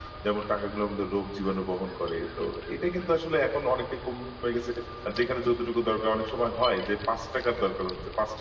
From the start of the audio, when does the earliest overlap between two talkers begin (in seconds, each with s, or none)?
none